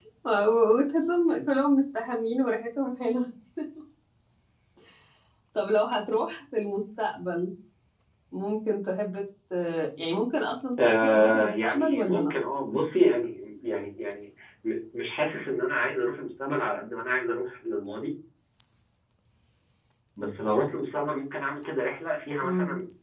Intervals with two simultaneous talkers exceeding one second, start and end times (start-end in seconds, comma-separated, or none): 10.9-12.2